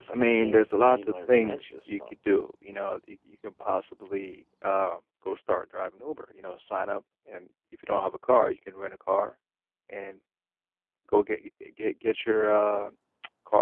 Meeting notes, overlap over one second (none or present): present